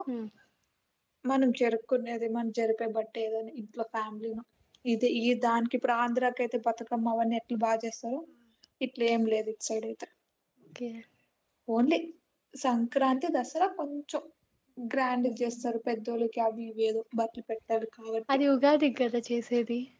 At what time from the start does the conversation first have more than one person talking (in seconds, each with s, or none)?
none